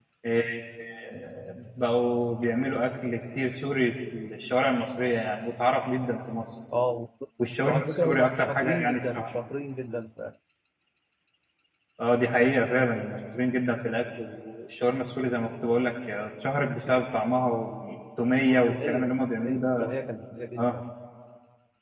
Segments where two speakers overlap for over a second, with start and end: 7.6-9.3, 18.6-19.9

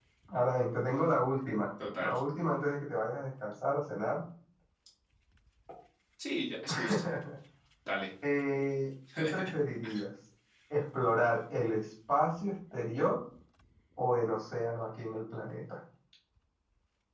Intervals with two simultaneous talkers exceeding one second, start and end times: none

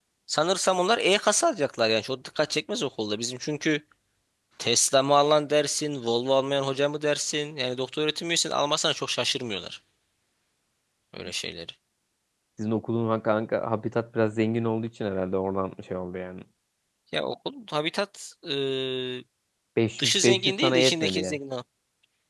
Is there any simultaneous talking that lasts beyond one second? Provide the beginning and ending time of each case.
20.0-21.4

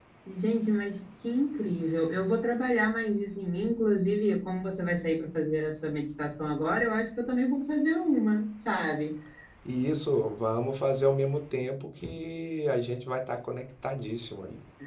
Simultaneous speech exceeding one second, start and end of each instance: none

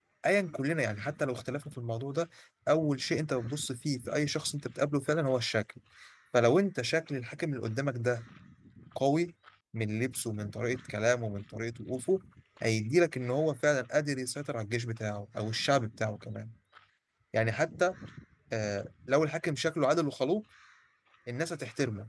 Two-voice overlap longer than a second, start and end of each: none

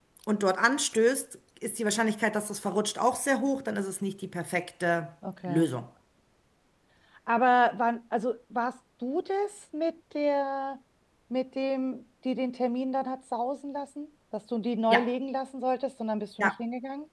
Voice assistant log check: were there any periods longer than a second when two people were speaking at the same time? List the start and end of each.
none

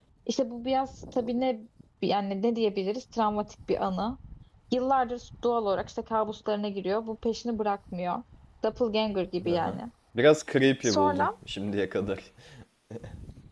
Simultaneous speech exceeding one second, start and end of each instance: none

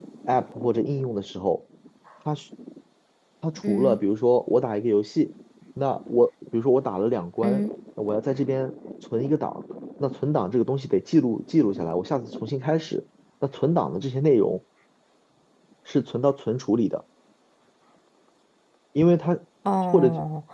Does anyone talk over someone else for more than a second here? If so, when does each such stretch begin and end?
none

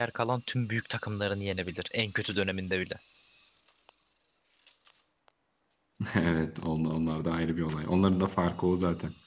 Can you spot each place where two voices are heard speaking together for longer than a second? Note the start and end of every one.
none

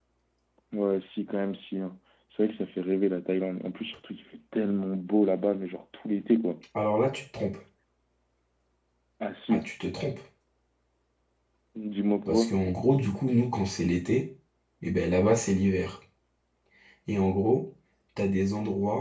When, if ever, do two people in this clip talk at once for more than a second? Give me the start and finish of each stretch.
none

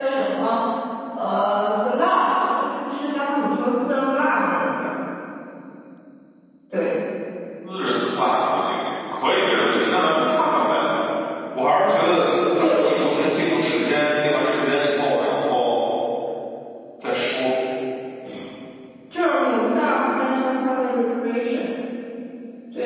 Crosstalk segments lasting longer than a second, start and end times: none

